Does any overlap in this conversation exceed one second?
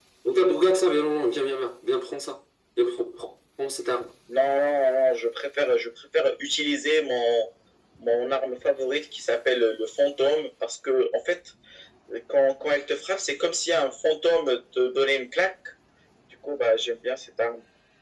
No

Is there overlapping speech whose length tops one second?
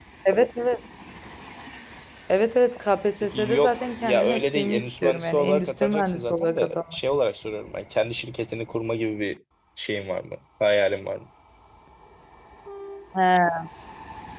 Yes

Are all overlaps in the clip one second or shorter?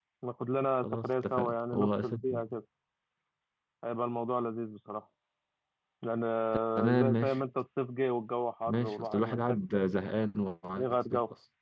No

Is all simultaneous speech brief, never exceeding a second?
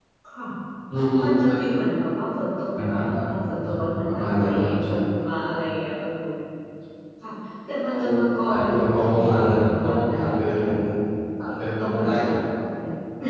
No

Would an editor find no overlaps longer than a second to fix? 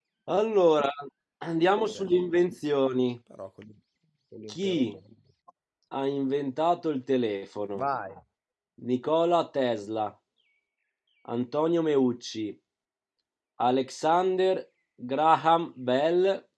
Yes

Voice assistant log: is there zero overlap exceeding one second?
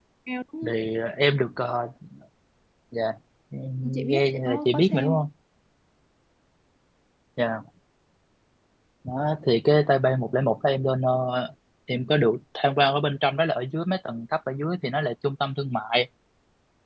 No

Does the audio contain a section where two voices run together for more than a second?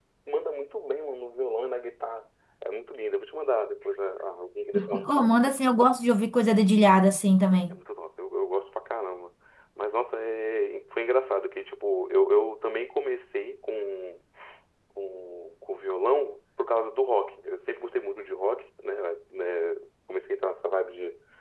No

